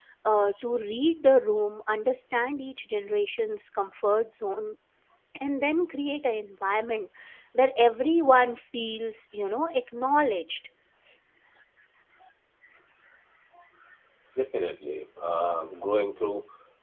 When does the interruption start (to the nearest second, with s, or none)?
none